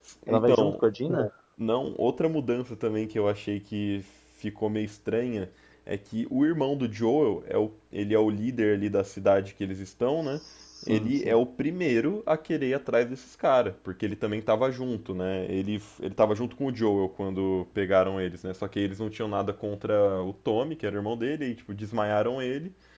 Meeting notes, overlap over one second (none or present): none